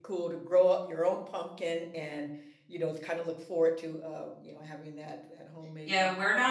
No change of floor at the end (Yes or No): No